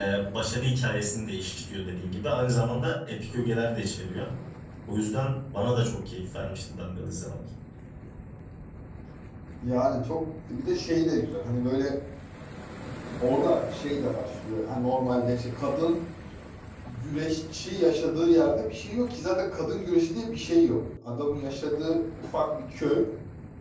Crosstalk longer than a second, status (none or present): none